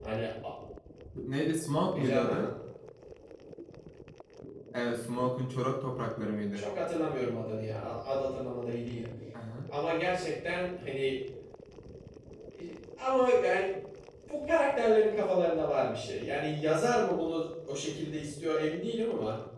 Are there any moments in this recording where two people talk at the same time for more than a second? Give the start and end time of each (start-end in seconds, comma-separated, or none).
none